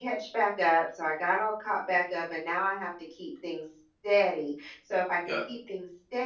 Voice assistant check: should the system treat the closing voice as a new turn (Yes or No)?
No